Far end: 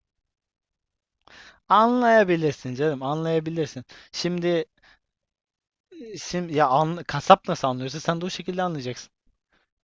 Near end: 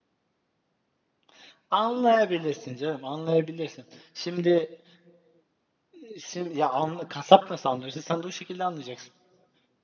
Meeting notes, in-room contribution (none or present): none